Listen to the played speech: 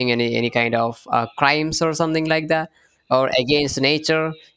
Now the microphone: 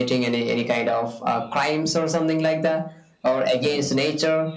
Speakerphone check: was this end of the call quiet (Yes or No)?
Yes